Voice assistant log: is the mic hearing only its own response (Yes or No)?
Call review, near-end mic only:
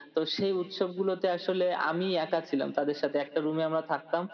Yes